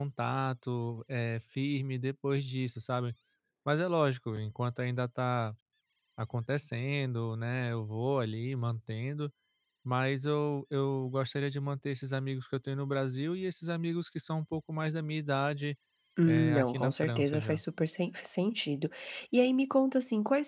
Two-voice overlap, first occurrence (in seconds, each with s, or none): 16.2 s